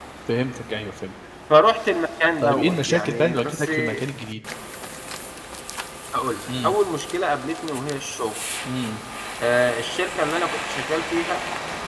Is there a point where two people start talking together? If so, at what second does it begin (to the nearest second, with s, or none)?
2 s